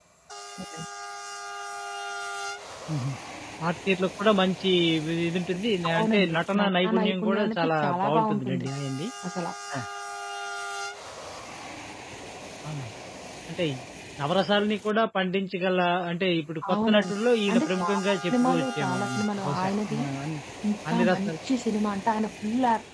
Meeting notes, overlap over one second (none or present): present